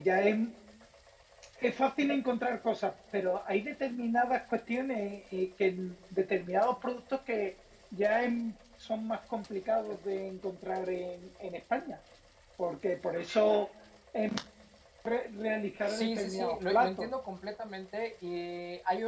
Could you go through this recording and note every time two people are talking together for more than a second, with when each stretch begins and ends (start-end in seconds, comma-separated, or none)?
15.9-17.1